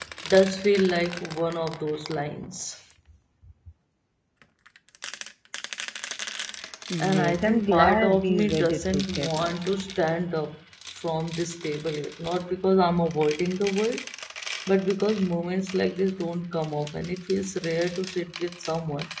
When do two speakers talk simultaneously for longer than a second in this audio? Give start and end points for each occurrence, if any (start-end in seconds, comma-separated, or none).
7.0-9.5